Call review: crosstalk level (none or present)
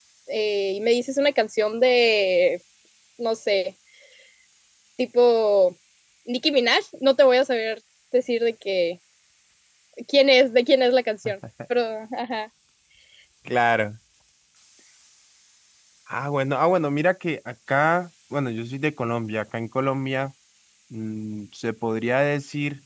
none